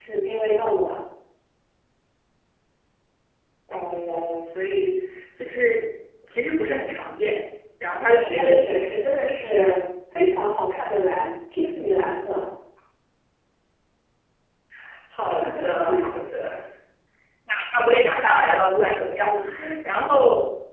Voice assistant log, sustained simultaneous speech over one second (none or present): present